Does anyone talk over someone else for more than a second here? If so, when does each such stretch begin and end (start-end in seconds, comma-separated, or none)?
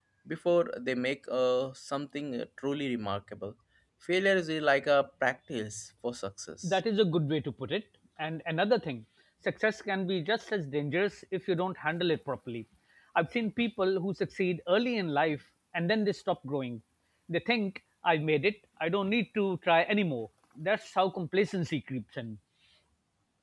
none